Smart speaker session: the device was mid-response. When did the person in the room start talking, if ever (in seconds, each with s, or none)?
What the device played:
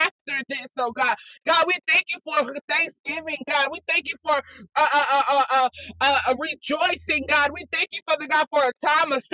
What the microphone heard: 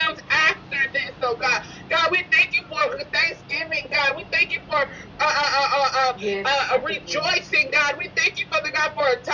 6.1 s